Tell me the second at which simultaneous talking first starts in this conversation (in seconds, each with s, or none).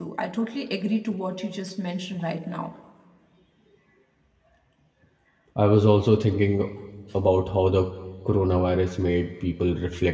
none